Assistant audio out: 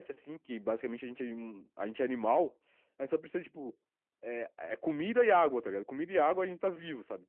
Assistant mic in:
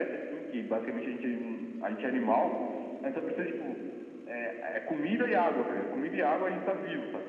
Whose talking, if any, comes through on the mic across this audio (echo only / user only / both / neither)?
echo only